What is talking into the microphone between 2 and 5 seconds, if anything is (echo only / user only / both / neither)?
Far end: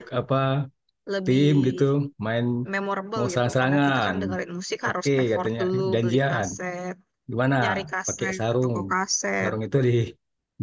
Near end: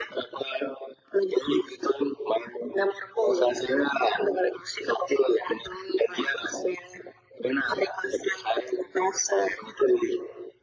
echo only